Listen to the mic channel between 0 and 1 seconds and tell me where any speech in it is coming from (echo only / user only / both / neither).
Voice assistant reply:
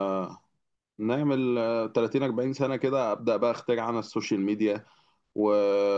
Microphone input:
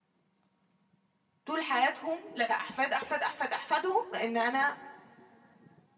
neither